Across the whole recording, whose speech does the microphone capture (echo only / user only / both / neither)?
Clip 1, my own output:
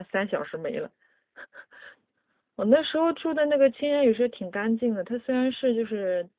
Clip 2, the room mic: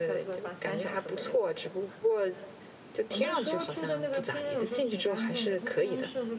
both